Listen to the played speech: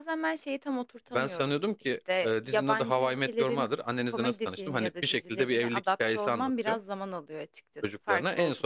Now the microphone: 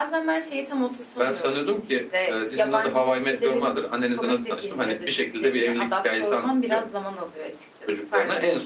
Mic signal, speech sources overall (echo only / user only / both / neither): echo only